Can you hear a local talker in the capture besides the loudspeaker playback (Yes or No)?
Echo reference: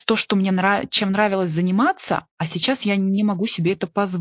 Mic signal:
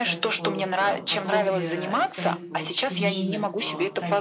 Yes